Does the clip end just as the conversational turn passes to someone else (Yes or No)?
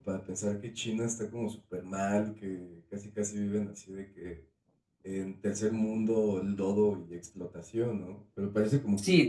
Yes